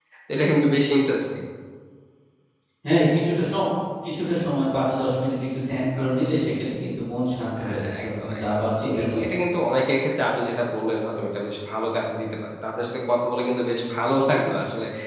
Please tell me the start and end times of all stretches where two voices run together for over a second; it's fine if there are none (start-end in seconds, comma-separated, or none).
7.6-9.4